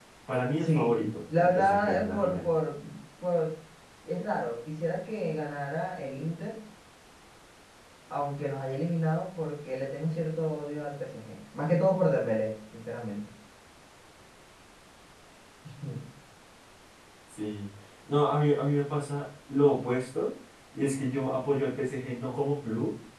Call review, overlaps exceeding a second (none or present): present